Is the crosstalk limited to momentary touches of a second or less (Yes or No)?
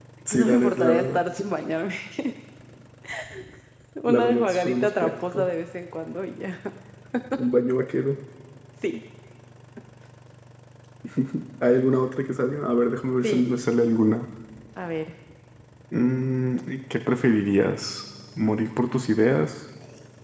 No